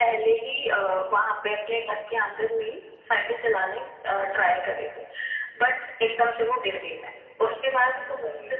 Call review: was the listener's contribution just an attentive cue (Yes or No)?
Yes